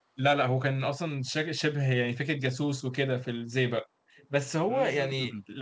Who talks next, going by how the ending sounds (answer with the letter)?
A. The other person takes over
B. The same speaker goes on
B